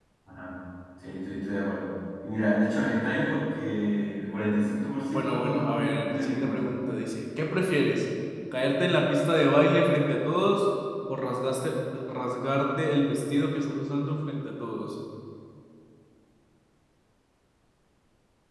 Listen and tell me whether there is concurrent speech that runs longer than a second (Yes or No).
Yes